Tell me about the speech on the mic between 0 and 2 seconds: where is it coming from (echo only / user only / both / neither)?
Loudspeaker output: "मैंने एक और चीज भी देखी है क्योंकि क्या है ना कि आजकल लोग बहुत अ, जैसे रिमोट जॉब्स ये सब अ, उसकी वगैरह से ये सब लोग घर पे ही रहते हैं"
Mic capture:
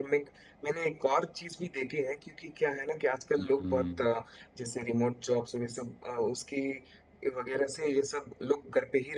echo only